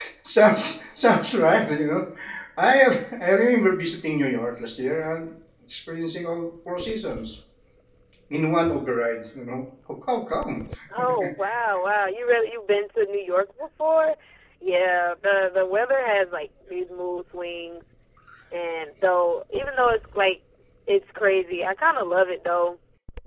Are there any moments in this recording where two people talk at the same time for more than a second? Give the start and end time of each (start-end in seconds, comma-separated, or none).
none